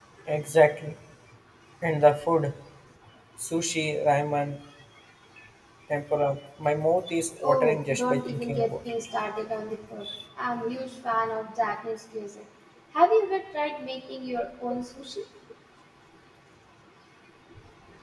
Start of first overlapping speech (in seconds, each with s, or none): 7.4 s